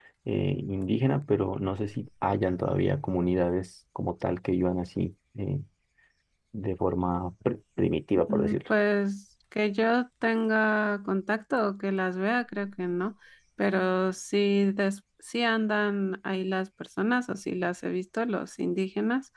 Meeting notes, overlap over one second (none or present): none